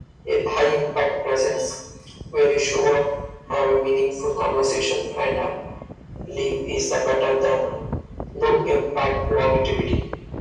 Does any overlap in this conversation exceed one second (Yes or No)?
No